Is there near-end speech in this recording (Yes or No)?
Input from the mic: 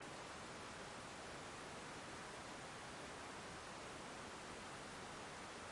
No